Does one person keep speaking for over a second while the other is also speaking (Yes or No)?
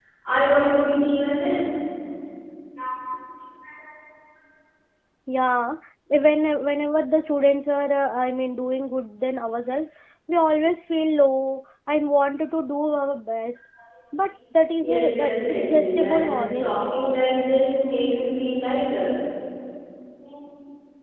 Yes